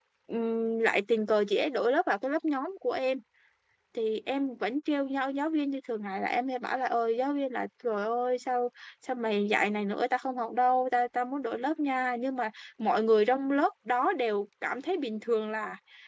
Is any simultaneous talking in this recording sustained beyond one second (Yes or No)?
No